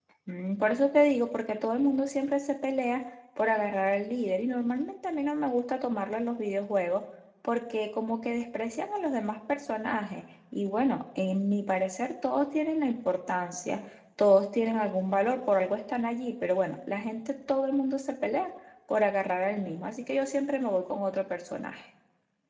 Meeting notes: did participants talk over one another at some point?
No

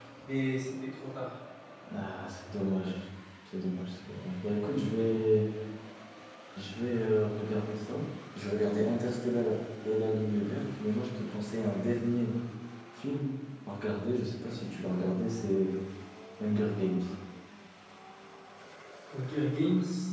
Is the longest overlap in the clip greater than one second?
No

